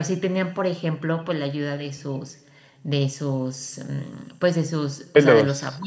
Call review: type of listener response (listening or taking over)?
listening